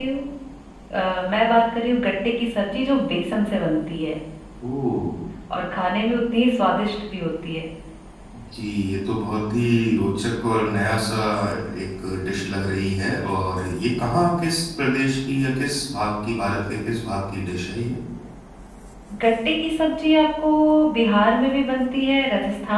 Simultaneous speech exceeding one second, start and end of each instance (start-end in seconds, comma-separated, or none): none